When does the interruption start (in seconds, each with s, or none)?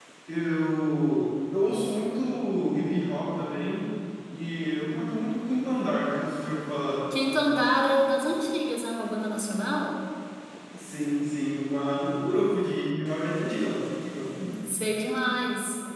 none